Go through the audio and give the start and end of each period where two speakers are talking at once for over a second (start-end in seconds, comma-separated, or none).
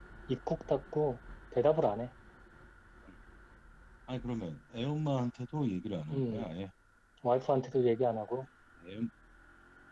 none